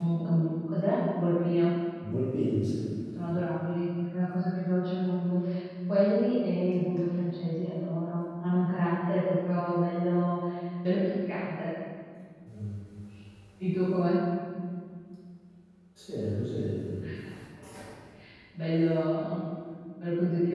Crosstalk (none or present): none